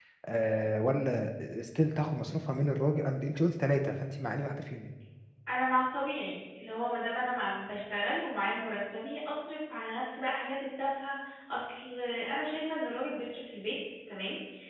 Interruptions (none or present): none